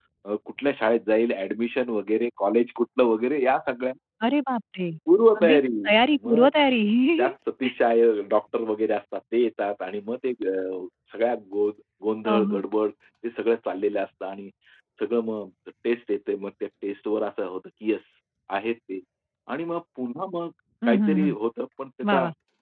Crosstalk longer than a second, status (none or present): none